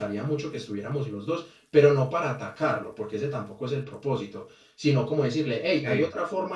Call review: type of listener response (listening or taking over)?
listening